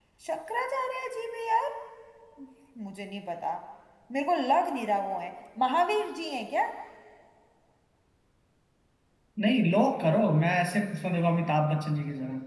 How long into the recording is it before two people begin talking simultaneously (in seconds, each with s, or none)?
none